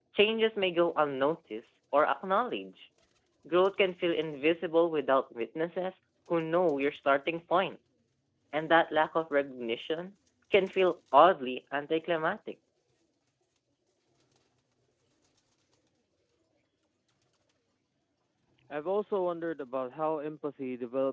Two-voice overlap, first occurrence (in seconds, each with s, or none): none